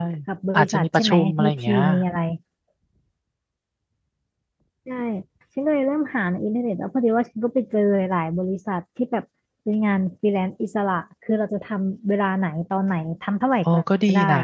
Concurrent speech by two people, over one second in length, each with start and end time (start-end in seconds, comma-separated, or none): 0.5-1.8